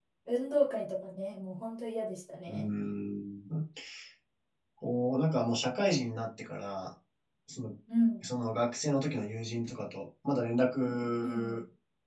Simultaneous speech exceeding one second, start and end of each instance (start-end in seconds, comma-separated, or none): none